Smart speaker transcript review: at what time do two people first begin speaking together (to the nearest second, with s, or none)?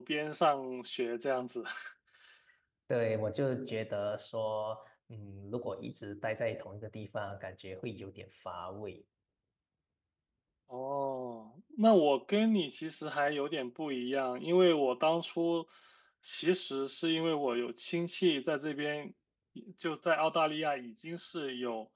none